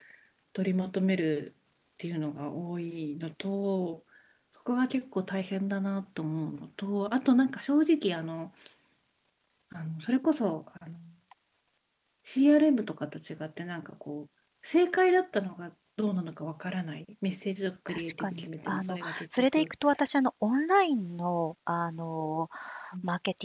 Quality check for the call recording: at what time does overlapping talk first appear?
17.9 s

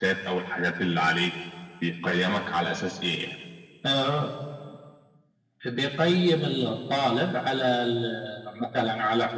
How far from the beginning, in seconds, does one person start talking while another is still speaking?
none

